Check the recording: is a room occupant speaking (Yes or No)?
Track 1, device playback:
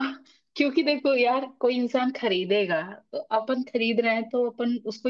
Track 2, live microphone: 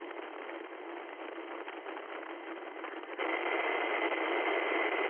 No